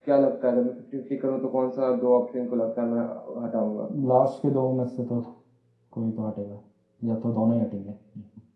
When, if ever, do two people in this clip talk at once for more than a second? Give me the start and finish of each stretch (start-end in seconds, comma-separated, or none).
none